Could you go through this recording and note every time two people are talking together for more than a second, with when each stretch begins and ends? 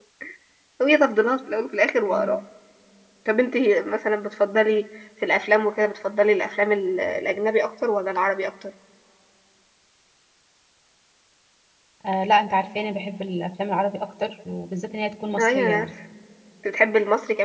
none

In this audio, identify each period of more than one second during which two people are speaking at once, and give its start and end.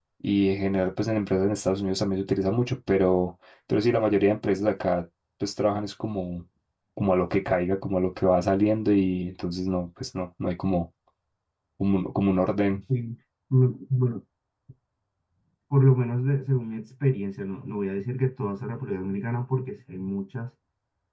none

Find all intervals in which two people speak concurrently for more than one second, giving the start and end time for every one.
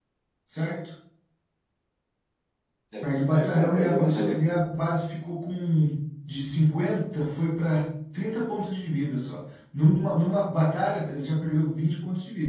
3.0-4.4

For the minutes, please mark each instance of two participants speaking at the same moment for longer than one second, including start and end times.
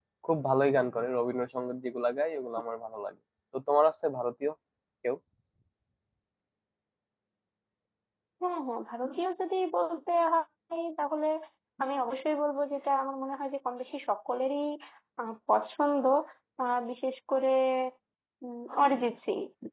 none

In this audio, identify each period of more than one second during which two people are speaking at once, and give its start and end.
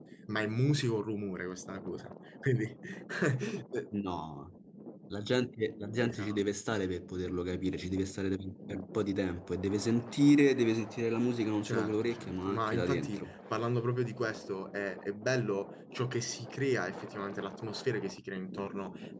11.6-13.3

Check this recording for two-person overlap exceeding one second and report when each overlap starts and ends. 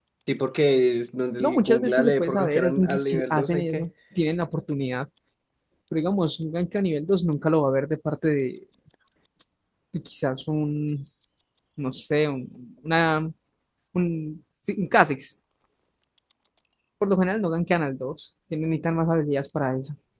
1.4-3.9

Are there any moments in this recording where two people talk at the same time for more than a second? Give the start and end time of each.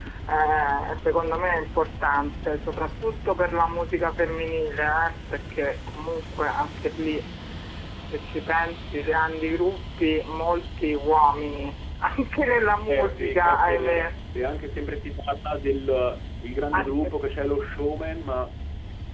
12.9-14.1

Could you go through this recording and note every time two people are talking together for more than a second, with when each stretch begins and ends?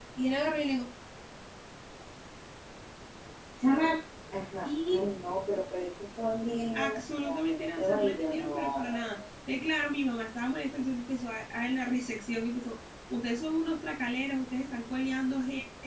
6.7-9.1

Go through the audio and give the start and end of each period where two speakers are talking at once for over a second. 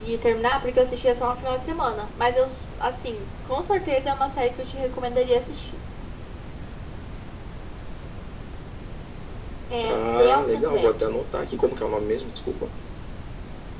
9.9-11.1

